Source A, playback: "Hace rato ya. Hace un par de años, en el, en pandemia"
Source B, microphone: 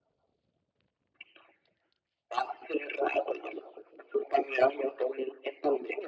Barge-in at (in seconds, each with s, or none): none